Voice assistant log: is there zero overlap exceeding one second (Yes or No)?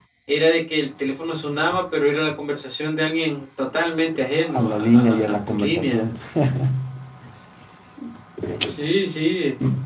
No